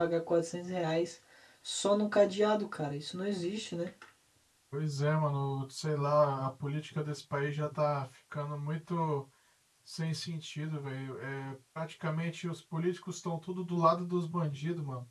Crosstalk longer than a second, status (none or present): none